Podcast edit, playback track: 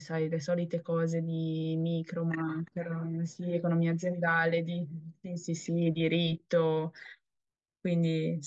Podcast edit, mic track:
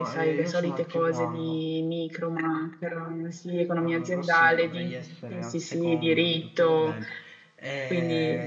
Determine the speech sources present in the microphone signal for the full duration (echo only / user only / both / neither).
both